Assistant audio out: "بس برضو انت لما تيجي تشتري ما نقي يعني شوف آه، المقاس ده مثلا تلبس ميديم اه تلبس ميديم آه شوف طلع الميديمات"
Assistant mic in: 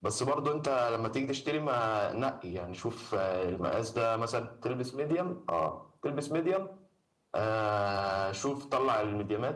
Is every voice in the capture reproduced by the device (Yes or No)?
Yes